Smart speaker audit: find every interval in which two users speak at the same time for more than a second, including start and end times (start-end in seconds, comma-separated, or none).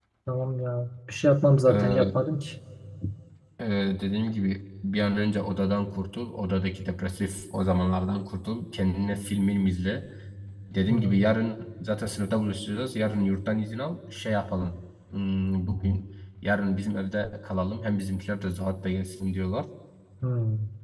none